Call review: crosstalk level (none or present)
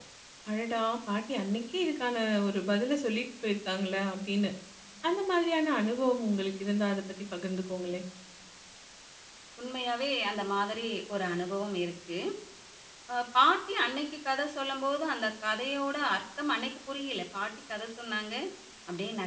none